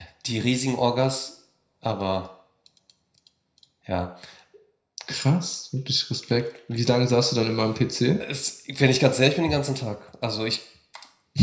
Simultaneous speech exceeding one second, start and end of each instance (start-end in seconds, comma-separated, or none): none